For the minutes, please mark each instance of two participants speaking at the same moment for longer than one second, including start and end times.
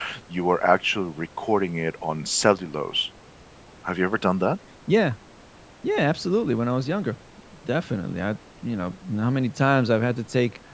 none

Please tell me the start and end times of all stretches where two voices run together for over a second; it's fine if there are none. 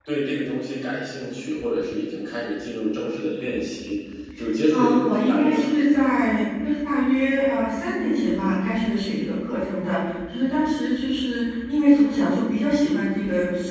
4.7-6.0

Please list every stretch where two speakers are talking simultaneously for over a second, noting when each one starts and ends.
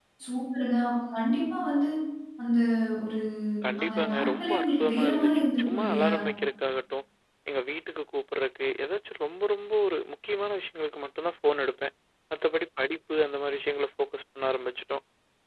3.8-6.1

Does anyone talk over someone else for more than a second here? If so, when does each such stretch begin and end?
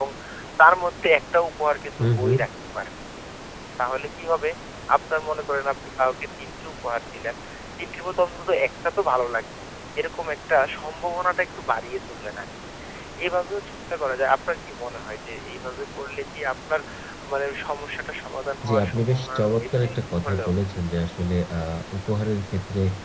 18.6-20.5

